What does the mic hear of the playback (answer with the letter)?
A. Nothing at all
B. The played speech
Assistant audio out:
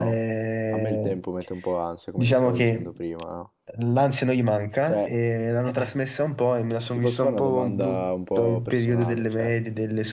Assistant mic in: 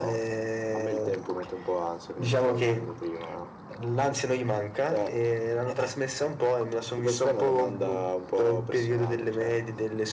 B